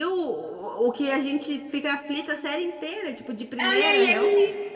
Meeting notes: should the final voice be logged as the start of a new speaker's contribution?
Yes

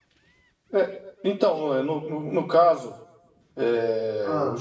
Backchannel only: Yes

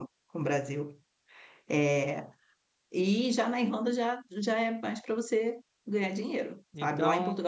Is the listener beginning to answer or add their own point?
No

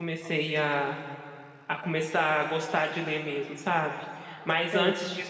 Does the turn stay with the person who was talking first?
Yes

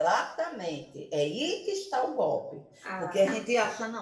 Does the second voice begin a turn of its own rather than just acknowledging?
No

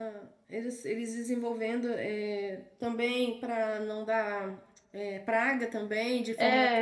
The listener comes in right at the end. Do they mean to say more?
Yes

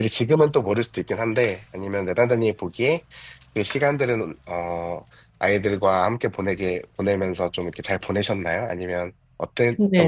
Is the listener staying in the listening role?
No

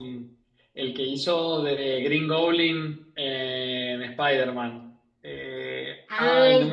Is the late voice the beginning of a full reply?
Yes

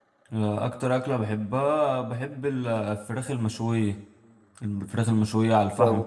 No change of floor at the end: Yes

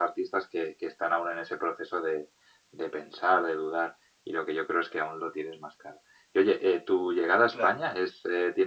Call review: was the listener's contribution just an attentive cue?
Yes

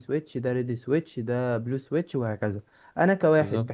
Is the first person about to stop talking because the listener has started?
No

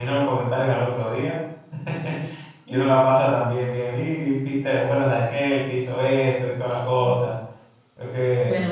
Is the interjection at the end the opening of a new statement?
Yes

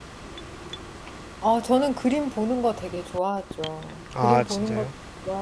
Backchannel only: Yes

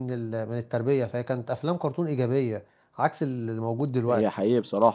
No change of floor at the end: No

